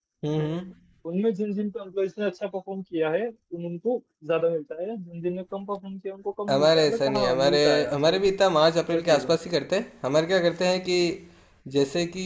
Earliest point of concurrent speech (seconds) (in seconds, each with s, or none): 6.5 s